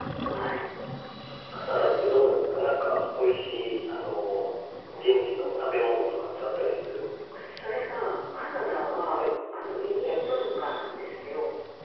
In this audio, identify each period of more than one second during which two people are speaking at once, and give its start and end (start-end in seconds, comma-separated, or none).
none